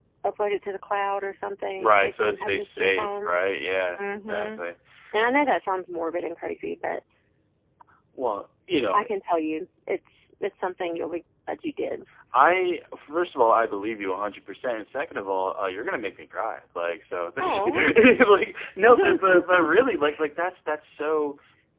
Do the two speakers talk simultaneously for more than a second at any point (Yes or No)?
Yes